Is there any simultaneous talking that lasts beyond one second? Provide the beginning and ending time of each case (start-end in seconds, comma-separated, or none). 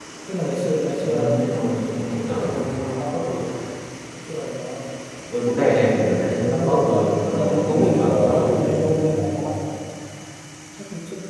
6.5-9.3